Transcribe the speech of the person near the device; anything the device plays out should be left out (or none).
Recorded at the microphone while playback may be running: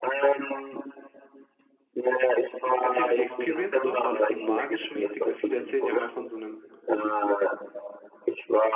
Erzähl mir die Experience dort. War das so magisch mäßig? Weil viele erzählen ja immer von so einem